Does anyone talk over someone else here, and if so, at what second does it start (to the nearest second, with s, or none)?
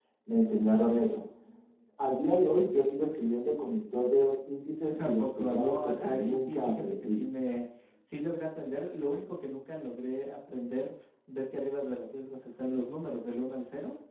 5 s